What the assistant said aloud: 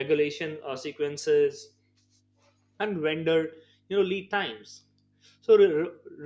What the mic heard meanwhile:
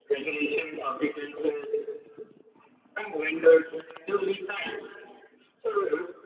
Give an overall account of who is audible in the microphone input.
echo only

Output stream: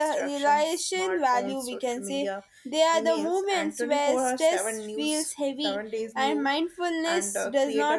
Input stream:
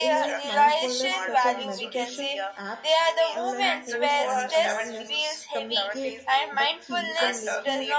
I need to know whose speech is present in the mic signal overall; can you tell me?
both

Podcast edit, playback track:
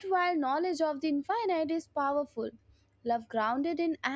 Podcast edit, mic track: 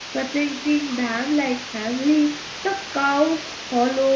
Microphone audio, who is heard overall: user only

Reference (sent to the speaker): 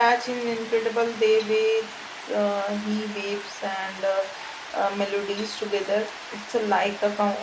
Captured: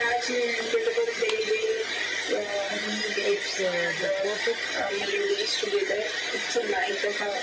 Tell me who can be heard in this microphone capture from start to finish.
both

